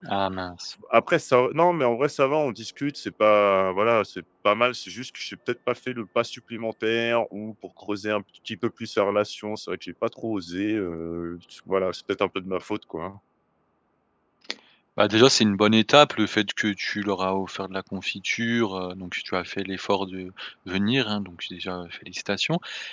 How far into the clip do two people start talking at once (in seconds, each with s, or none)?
none